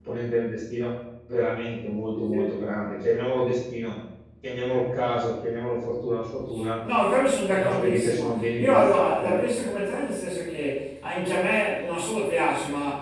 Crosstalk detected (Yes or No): Yes